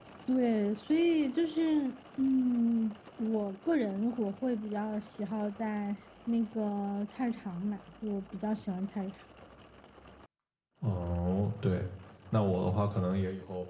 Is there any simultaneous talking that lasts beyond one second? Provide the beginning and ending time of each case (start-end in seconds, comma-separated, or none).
none